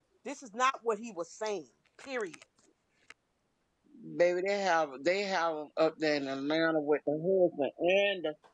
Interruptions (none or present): none